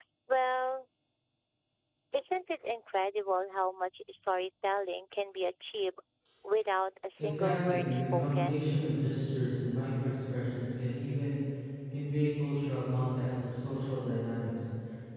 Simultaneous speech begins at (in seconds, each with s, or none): 7.2 s